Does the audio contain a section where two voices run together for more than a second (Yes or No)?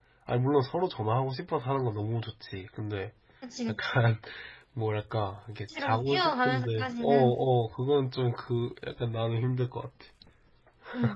Yes